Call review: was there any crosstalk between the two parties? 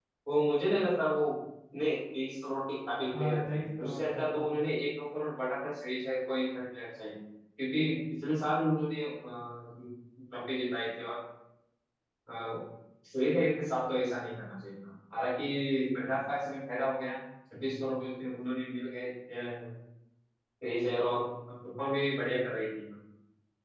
Yes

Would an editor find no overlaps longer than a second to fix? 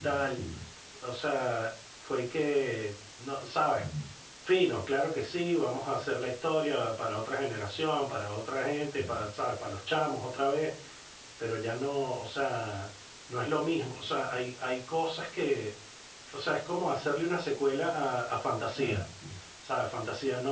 Yes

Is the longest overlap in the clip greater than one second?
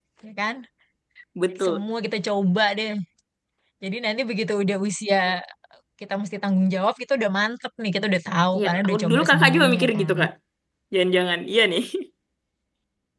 Yes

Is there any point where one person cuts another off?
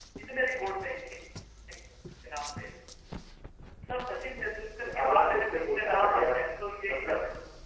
Yes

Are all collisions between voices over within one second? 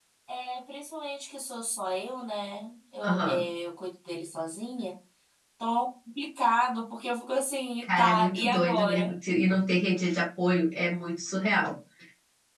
No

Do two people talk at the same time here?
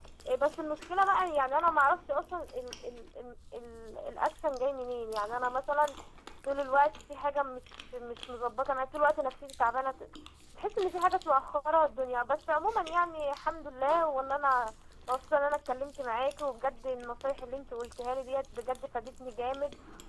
No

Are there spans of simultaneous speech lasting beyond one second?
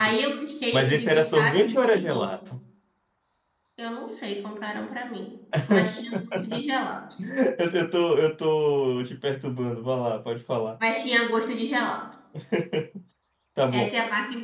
Yes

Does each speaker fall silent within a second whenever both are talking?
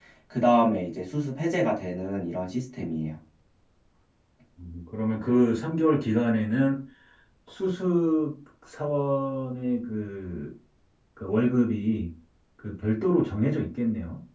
Yes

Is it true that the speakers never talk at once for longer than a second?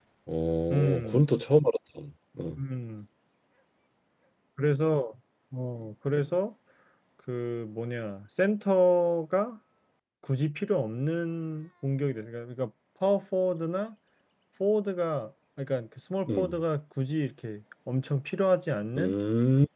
Yes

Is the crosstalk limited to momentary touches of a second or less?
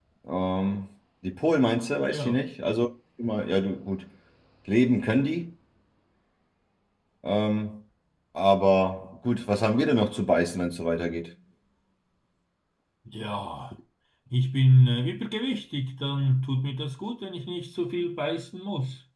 Yes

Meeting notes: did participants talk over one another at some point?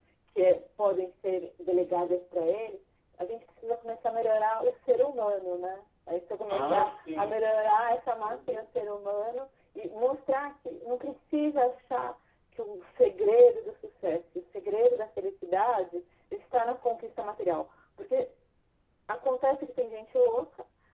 Yes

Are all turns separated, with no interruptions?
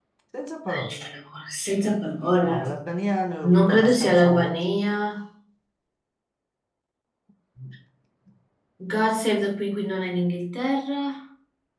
No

